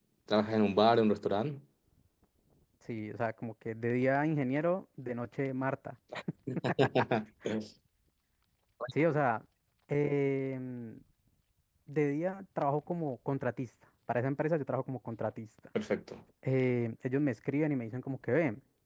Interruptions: none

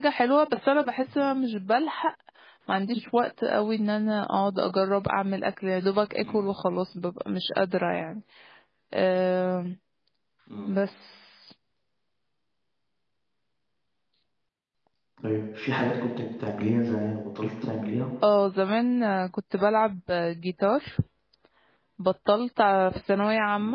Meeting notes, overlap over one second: none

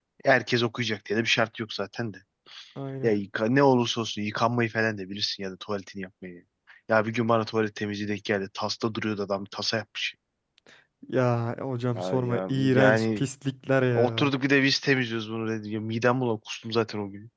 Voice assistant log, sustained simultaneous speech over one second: present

